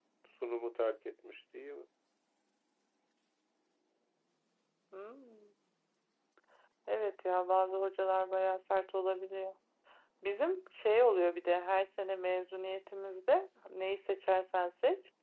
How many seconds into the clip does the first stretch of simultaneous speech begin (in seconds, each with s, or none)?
none